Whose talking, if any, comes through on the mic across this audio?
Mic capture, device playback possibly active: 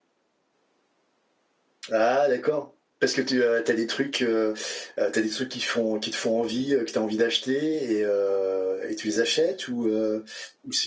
user only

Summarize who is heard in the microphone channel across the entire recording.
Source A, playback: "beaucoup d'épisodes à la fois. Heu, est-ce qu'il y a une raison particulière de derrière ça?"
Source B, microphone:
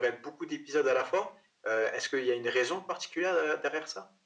echo only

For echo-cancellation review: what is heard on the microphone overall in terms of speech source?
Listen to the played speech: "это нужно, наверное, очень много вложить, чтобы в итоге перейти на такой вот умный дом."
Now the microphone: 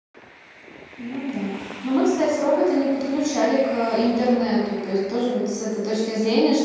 user only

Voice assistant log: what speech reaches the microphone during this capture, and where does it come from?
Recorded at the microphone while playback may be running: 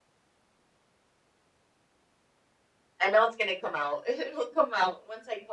echo only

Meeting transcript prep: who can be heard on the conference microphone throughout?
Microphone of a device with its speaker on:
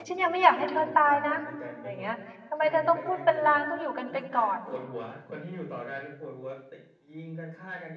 both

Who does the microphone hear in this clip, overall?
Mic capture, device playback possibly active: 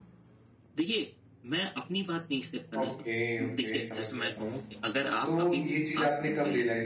both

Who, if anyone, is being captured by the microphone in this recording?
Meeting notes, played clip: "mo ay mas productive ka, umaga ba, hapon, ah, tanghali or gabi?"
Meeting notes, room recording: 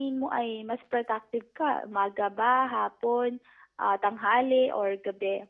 echo only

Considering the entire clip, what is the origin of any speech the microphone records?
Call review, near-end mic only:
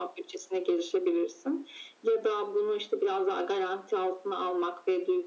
echo only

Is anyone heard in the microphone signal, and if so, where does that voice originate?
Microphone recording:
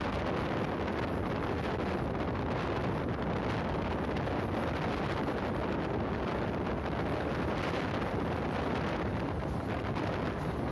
neither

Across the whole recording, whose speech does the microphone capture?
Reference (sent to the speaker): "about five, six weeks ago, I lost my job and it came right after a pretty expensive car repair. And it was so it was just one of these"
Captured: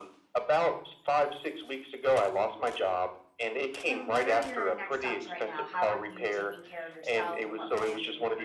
both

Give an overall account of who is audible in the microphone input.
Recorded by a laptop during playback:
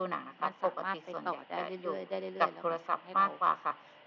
both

